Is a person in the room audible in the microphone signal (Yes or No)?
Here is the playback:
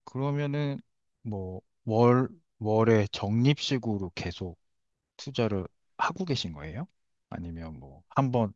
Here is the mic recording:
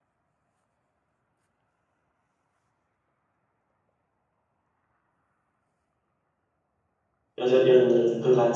Yes